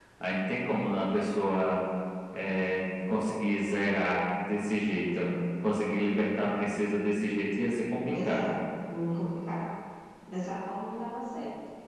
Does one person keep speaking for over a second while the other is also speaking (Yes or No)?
No